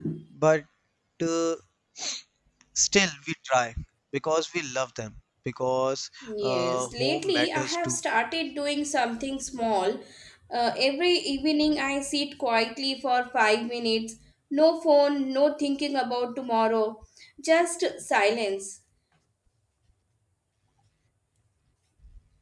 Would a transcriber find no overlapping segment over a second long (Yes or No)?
No